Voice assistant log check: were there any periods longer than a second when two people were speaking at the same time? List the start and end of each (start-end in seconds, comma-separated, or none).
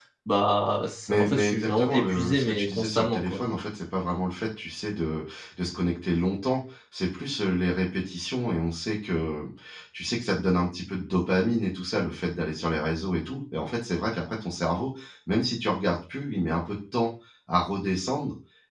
1.1-3.4